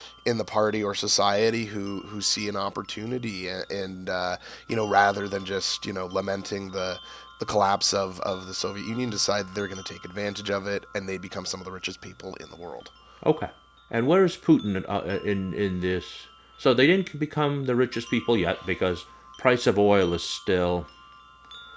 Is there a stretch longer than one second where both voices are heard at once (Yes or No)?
No